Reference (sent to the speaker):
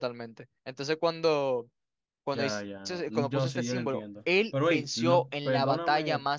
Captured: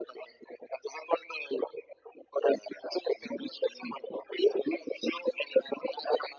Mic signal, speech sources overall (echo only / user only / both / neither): echo only